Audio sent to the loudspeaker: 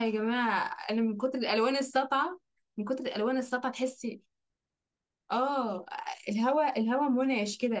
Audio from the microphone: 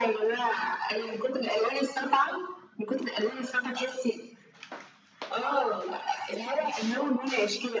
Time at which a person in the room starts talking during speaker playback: none

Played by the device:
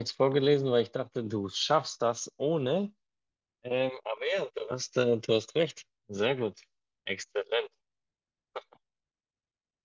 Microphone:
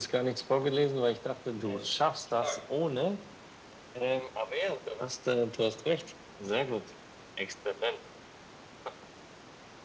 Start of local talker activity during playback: 1.5 s

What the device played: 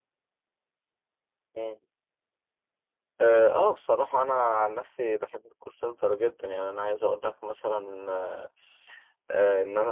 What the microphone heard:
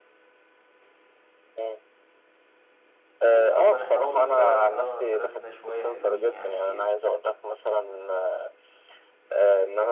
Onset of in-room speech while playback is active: 3.3 s

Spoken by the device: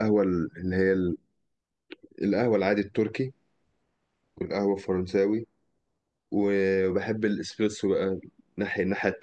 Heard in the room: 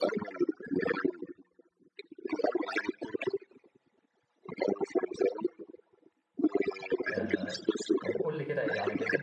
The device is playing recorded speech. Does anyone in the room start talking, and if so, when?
7.1 s

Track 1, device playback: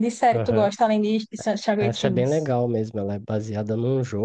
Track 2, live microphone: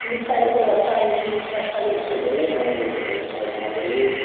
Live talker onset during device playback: none

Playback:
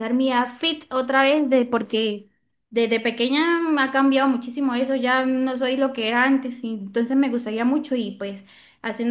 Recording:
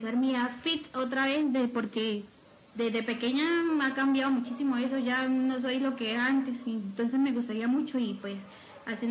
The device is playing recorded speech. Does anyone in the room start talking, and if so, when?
none

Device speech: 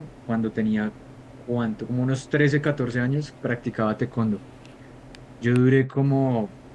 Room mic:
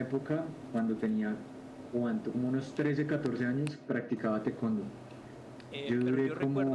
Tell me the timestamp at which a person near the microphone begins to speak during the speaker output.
5.7 s

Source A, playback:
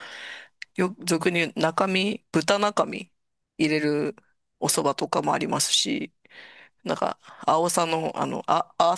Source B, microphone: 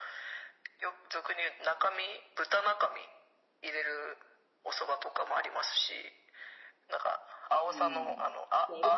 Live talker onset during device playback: 7.6 s

